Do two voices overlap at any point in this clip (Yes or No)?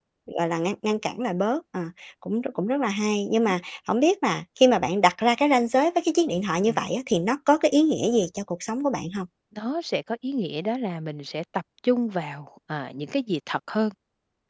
No